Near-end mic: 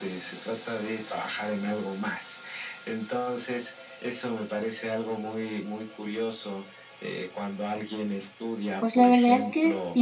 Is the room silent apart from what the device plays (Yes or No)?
No